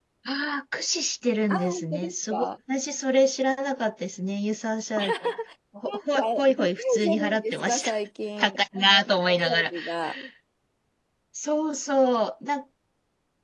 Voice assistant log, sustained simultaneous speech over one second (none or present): present